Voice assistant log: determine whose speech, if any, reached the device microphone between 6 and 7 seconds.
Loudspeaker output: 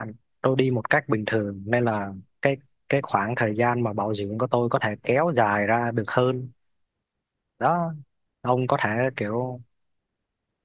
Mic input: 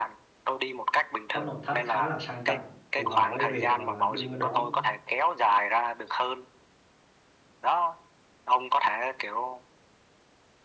echo only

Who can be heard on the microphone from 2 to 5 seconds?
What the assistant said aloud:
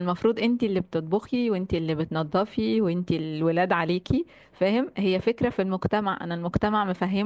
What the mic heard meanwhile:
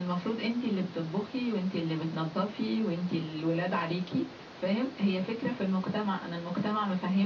echo only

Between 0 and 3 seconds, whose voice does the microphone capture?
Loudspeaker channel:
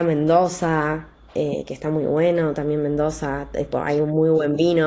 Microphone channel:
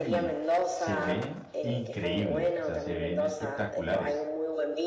both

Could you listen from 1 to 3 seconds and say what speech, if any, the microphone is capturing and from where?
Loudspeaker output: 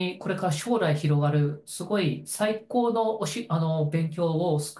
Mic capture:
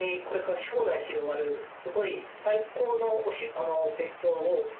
echo only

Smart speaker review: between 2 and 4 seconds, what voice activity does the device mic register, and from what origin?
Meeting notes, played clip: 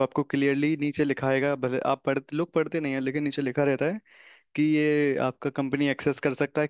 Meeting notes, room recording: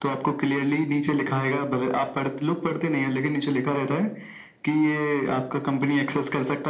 echo only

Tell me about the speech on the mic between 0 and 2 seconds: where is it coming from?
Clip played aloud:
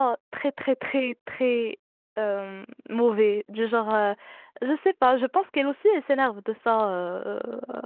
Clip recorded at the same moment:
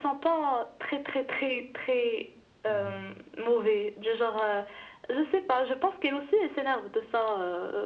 echo only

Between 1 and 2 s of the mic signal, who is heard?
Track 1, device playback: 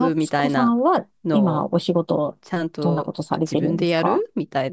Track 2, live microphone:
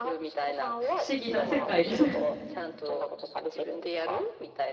both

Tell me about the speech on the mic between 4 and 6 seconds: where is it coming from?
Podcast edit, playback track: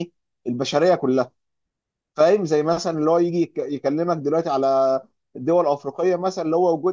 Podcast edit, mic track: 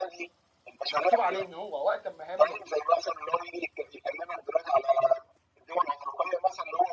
echo only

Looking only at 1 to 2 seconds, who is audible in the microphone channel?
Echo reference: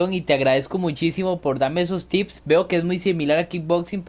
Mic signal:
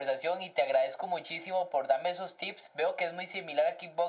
echo only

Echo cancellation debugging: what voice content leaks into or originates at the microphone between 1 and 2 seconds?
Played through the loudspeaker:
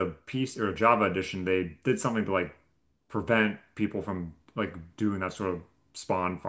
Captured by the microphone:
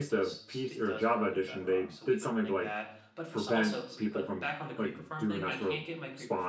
both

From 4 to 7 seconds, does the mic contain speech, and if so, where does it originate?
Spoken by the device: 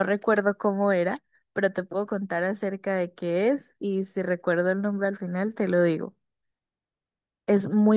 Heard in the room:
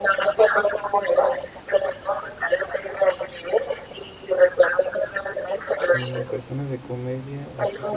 both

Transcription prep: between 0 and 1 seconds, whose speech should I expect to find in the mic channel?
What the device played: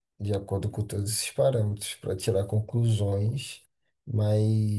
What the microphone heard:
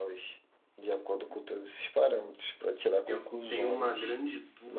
echo only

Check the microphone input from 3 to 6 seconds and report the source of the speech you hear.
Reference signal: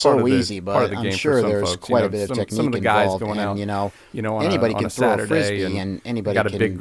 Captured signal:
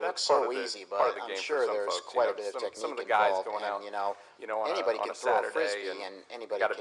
echo only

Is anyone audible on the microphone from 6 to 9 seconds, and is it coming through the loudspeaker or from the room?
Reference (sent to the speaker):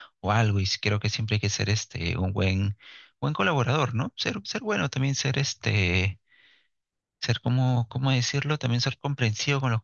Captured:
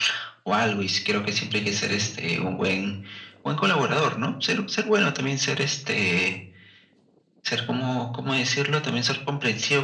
echo only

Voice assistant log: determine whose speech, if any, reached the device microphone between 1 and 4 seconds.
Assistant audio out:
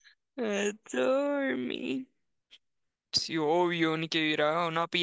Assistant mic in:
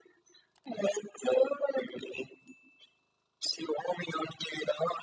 echo only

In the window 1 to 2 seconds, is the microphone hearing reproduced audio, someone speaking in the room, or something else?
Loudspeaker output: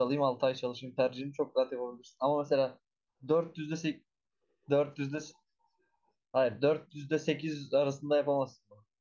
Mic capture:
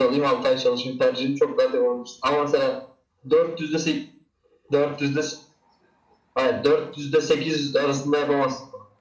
echo only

